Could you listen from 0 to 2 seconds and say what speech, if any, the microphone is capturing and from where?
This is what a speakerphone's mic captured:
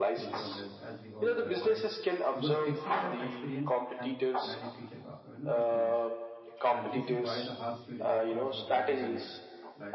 both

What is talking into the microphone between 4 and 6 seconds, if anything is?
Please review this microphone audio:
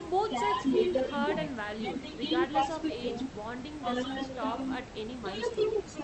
both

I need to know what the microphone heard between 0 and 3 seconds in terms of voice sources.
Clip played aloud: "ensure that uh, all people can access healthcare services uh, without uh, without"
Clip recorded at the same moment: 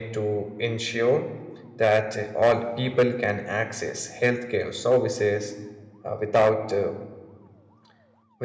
echo only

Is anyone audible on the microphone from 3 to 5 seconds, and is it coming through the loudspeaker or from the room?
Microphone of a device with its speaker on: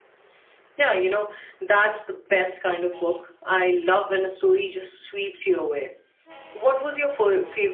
user only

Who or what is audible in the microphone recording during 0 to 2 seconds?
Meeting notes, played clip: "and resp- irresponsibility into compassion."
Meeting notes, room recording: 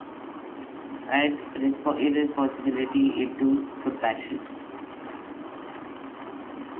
echo only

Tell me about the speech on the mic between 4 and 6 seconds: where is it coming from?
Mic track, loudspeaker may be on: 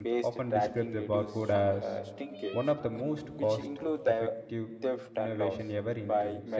both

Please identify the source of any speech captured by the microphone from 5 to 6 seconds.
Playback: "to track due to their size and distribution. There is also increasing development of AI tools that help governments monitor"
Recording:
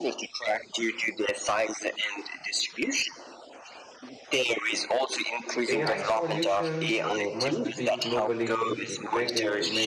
both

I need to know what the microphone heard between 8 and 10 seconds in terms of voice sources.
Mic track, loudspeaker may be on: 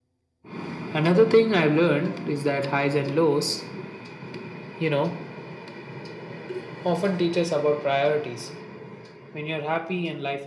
echo only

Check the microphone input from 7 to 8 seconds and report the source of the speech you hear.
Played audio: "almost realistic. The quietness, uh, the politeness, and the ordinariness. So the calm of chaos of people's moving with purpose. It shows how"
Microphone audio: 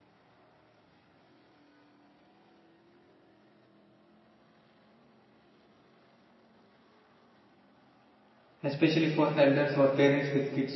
neither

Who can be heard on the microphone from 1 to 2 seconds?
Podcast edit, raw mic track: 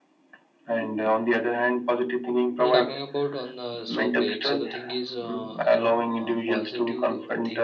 echo only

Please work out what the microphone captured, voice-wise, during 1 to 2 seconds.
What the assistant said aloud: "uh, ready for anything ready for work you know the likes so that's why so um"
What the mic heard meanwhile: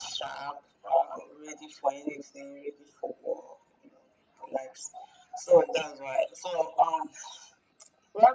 echo only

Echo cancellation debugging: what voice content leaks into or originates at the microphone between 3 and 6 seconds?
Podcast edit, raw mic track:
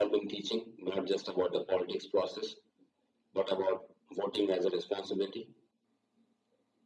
echo only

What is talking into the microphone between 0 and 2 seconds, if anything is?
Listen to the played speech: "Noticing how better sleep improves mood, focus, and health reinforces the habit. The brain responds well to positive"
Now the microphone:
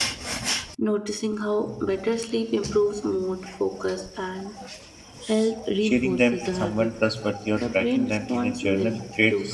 echo only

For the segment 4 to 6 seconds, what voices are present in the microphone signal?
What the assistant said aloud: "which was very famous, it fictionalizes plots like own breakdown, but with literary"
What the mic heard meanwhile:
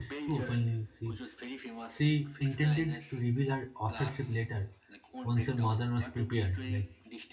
both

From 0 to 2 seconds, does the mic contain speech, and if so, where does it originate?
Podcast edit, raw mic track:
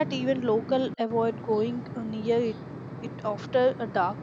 user only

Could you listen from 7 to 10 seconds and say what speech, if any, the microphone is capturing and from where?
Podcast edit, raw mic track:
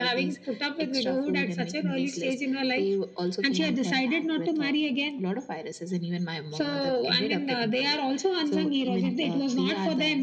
echo only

